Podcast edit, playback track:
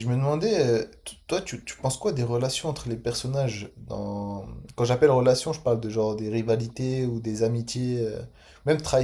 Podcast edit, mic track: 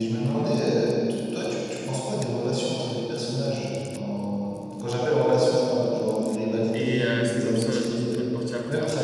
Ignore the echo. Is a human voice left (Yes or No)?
Yes